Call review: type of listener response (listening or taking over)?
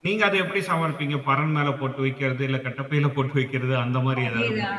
taking over